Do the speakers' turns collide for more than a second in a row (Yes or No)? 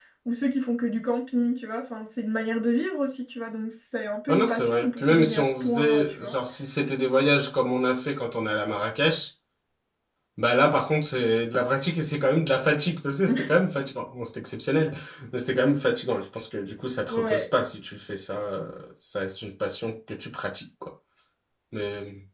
Yes